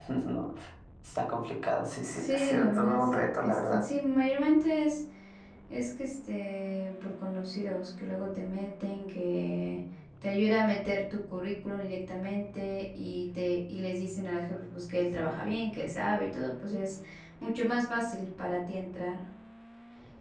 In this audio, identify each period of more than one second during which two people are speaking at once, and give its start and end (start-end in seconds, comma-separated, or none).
2.1-3.8